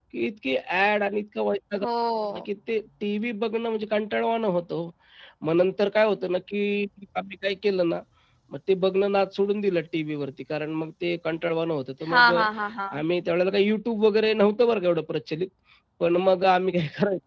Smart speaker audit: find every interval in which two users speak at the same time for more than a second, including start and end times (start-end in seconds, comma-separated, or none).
none